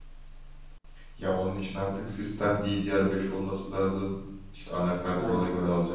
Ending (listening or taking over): listening